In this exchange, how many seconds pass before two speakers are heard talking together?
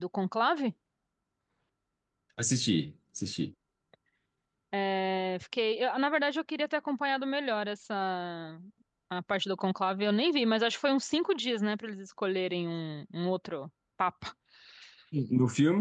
none

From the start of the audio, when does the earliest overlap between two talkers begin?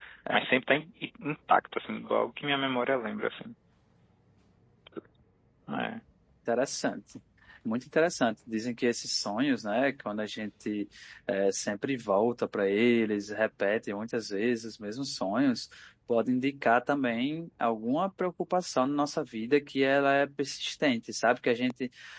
none

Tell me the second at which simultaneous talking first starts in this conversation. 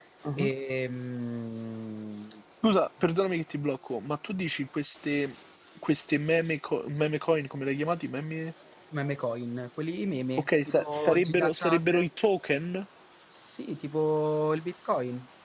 10 s

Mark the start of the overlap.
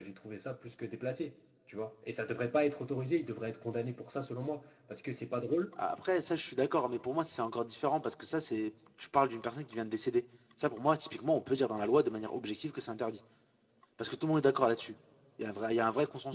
none

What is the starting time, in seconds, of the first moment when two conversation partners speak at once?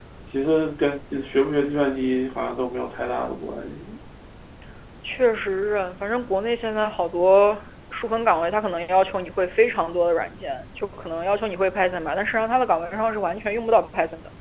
none

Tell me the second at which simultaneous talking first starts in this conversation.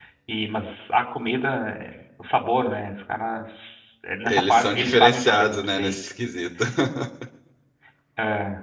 4 s

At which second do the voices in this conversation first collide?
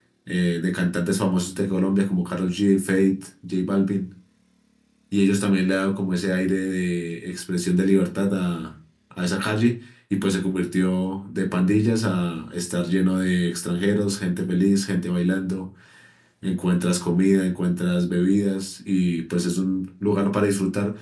none

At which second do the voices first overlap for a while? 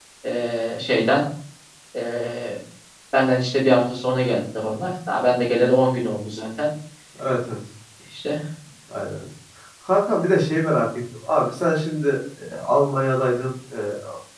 none

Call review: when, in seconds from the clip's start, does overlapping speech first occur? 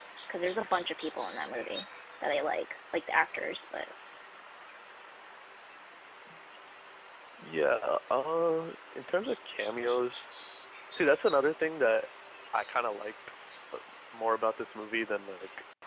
none

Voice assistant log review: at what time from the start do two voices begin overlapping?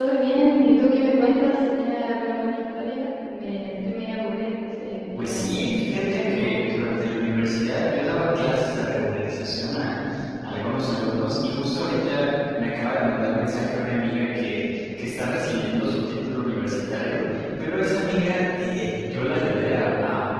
5 s

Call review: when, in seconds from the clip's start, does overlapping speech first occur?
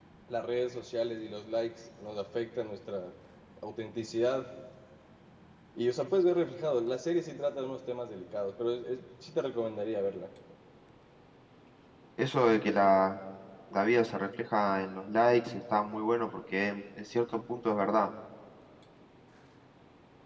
none

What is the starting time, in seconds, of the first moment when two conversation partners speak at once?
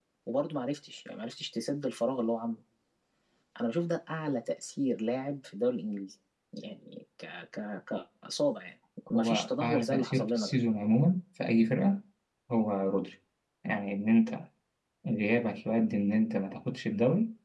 9 s

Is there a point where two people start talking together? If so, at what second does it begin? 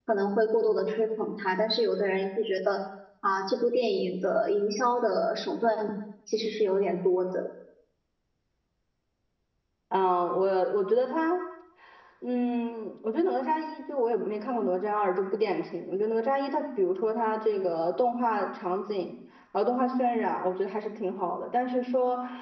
none

